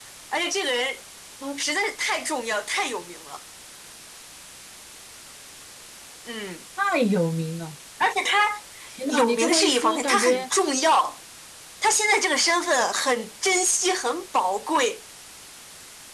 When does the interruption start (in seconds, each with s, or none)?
9.1 s